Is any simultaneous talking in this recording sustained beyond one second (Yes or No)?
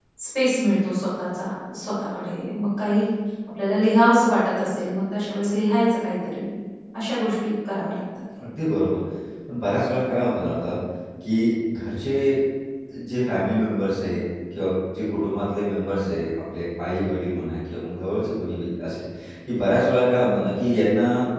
No